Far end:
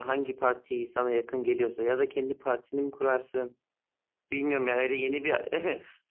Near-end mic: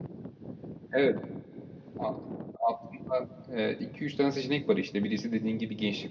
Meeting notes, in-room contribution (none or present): present